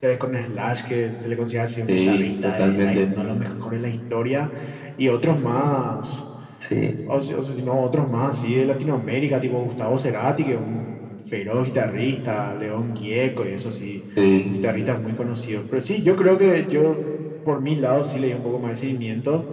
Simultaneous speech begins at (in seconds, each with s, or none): 1.9 s